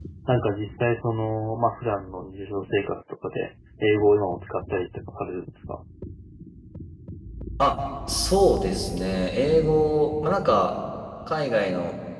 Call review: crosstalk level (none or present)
none